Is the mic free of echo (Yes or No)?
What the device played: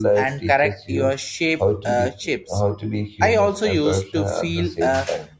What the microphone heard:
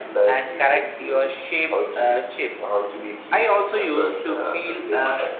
No